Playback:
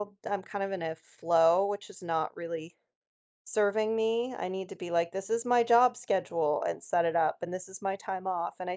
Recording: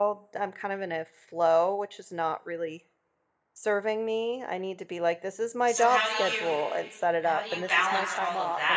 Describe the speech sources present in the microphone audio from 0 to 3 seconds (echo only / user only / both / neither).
echo only